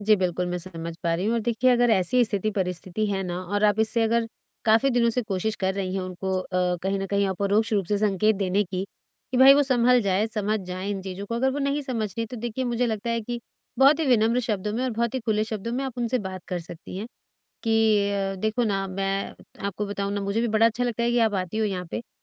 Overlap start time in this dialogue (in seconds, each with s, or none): none